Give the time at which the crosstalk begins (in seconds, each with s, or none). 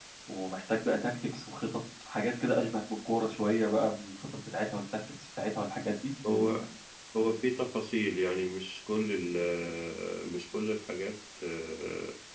none